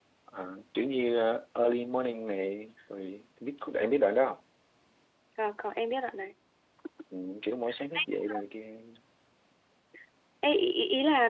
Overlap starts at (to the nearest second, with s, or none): none